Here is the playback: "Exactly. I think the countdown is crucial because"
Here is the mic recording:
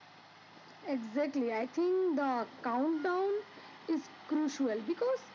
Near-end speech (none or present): none